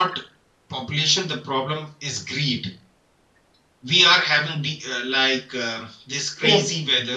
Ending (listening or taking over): listening